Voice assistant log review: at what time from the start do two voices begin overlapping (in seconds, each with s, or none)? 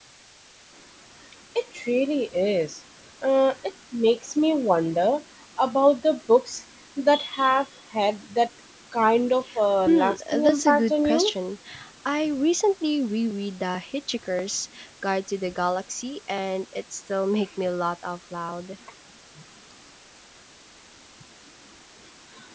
9.9 s